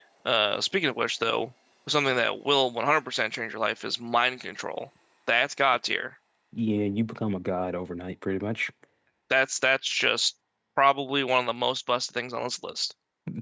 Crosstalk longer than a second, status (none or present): none